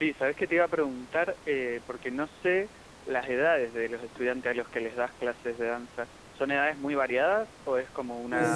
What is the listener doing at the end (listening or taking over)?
taking over